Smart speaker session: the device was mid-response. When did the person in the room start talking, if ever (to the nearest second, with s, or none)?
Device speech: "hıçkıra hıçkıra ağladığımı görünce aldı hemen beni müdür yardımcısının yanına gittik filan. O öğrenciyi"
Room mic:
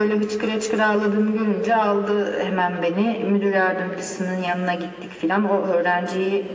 none